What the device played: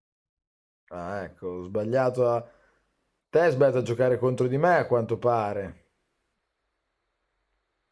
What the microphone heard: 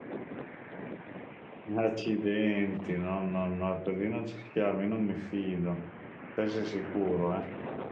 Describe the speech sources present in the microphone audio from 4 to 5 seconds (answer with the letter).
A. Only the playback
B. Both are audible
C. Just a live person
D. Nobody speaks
C